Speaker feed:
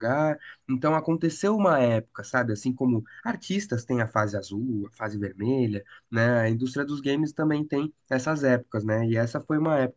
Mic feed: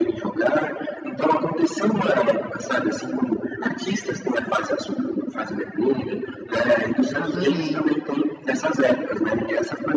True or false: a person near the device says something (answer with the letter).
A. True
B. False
A